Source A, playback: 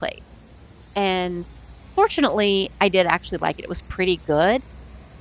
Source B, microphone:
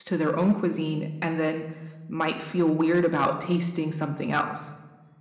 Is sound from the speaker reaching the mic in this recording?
No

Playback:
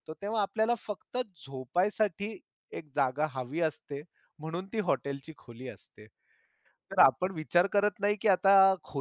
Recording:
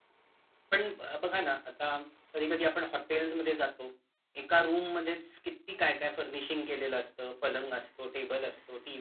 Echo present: No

